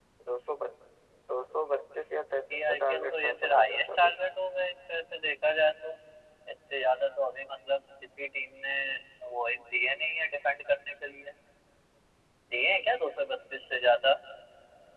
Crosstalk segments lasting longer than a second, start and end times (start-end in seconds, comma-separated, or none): 2.5-4.2